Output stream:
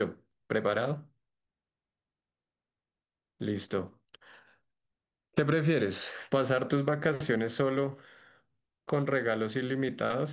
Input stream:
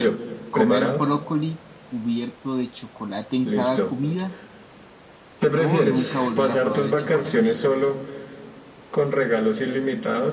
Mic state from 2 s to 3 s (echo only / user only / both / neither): user only